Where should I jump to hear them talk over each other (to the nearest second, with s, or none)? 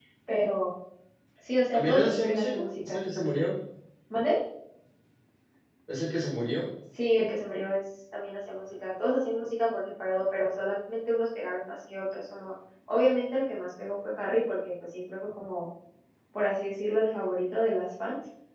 2 s